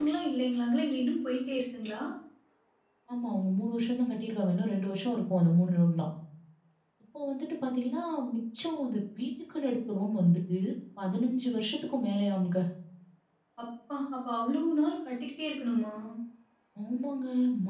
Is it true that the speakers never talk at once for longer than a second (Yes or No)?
Yes